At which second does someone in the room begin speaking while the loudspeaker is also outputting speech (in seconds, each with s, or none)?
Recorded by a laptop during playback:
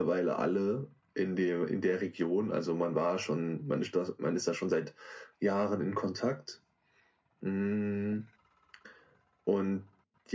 none